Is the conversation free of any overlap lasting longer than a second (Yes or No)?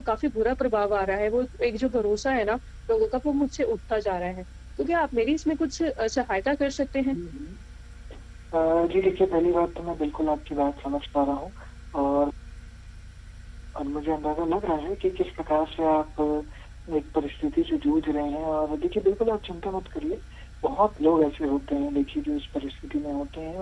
Yes